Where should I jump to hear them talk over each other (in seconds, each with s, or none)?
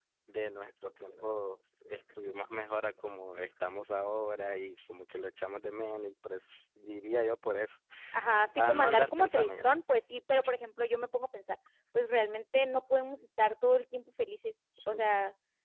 8.6 s